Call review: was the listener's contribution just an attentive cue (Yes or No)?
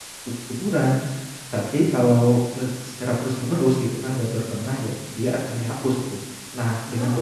Yes